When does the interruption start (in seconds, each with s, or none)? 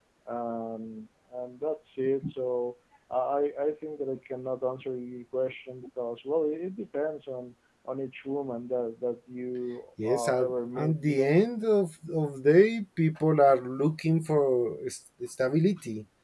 10.0 s